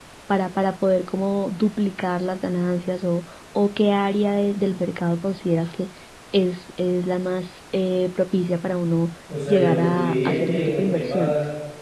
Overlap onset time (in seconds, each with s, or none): 9.3 s